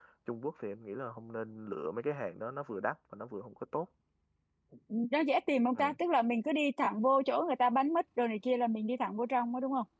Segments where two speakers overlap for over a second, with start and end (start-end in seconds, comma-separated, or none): none